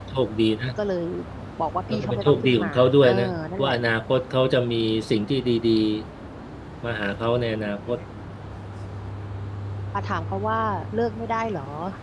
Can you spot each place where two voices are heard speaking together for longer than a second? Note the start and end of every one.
1.9-3.1

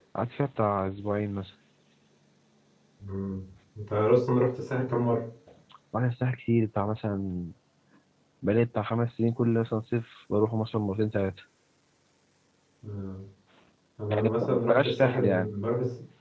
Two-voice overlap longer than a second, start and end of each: 14.1-15.5

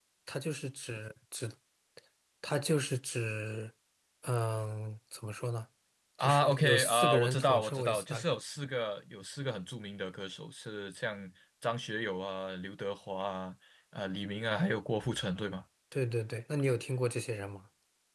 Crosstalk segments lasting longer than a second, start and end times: 6.2-8.2

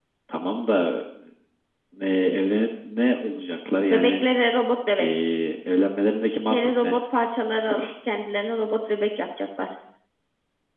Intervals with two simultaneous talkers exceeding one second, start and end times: none

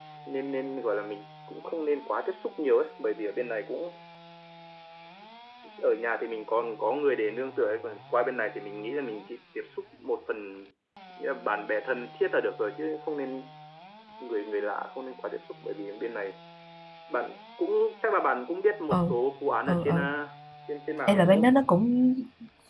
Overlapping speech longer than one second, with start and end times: none

